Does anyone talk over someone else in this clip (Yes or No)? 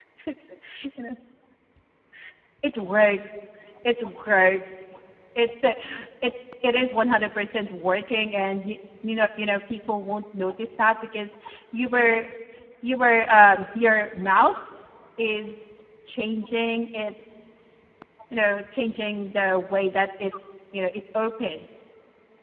No